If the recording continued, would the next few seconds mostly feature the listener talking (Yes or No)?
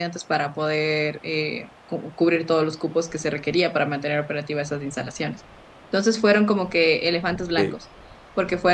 No